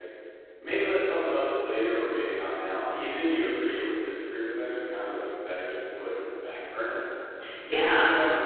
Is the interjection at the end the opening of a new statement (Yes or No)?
No